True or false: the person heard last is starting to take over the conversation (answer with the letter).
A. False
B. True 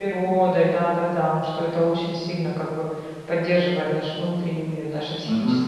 B